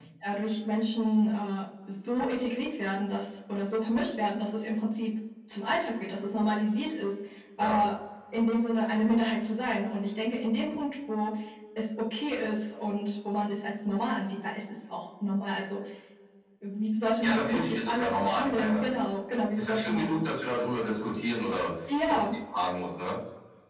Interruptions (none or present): present